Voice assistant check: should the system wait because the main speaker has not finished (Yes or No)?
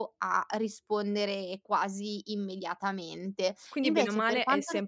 No